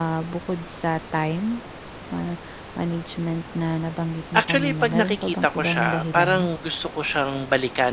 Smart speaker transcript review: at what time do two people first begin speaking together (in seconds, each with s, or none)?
4.3 s